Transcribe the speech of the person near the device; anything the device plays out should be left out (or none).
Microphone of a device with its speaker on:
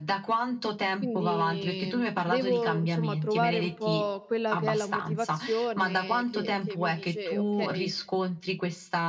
Quindi devo insomma trovare un po' quella che è la motivazione che che mi dice: "Okay,